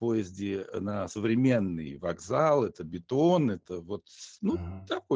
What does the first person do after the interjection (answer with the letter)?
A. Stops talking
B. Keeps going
B